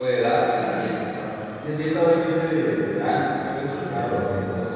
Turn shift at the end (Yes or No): No